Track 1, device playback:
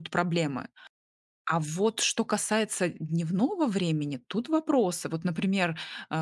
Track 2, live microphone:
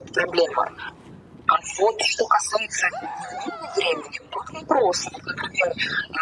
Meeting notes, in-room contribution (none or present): none